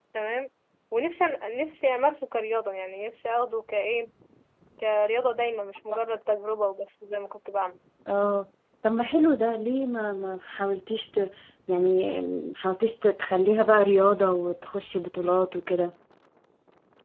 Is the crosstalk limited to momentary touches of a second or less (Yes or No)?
Yes